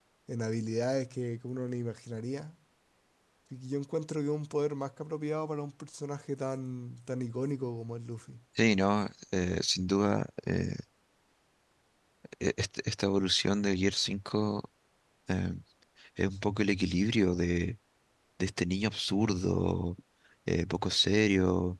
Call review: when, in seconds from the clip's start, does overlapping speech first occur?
none

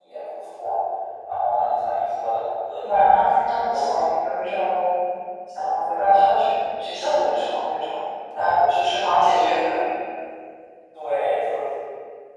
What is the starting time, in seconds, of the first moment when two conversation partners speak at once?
2.8 s

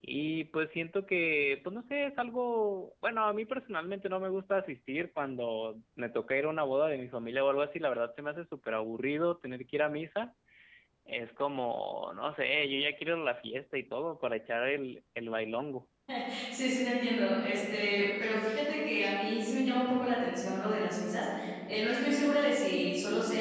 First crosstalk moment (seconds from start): none

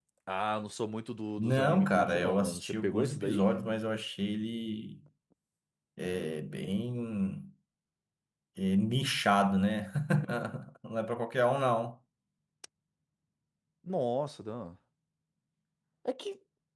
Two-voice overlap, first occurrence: 1.4 s

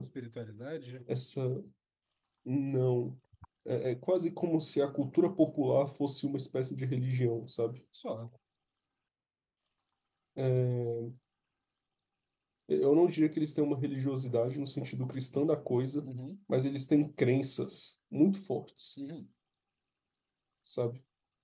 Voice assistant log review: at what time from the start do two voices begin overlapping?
none

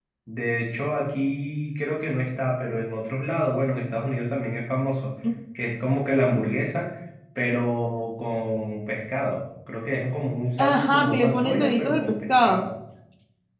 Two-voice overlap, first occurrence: 10.6 s

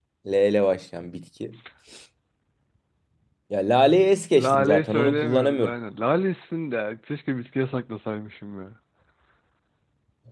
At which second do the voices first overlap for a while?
4.3 s

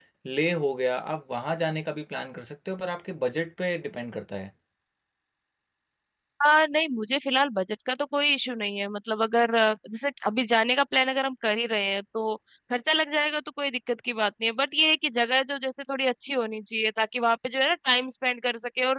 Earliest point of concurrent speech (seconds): none

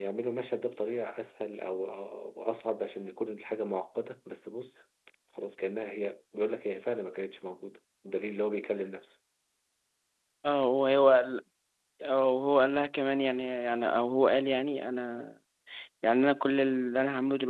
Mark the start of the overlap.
none

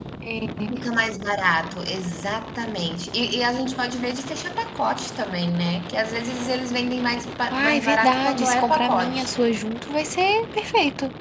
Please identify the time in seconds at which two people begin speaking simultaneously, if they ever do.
7.5 s

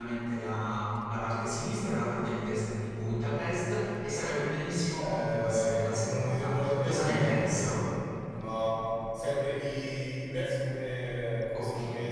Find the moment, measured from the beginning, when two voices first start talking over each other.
4.9 s

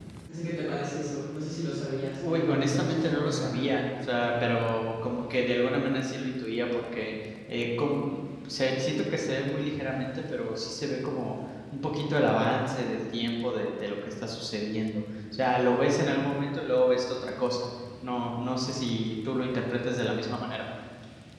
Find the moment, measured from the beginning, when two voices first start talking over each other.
2.2 s

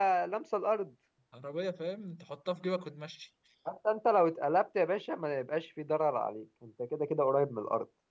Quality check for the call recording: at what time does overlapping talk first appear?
none

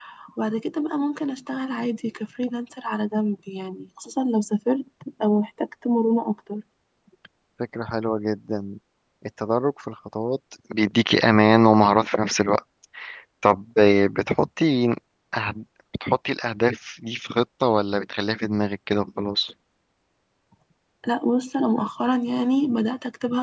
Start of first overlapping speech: none

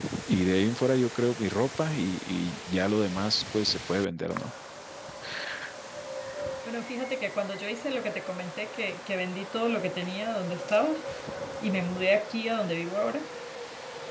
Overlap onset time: none

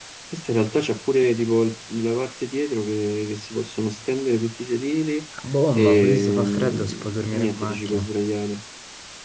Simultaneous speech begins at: 5.7 s

